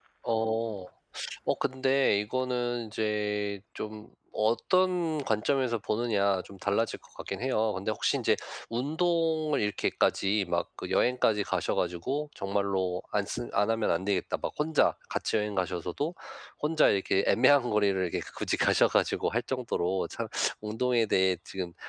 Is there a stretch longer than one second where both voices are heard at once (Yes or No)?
No